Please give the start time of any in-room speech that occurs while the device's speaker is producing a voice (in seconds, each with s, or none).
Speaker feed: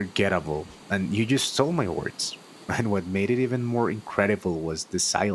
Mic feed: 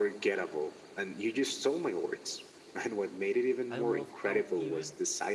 3.7 s